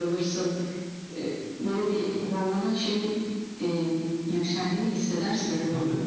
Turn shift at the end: Yes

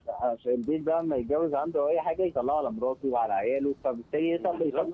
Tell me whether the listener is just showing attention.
Yes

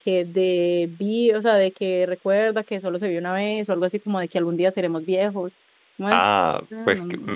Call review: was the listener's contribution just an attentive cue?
No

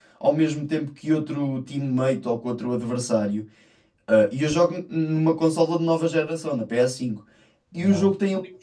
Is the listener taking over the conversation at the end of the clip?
No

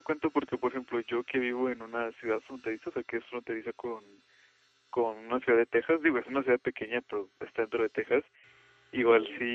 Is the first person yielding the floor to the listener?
No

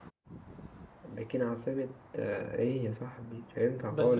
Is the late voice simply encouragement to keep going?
No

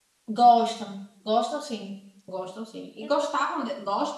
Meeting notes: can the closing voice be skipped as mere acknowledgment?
Yes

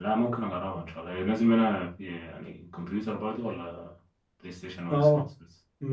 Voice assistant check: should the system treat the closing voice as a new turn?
Yes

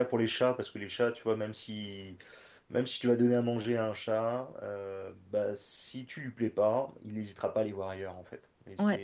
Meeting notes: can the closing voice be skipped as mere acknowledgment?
Yes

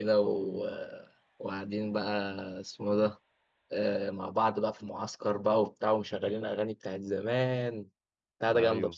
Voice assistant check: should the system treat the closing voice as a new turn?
Yes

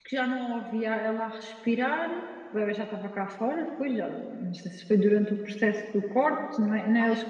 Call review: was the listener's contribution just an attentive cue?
Yes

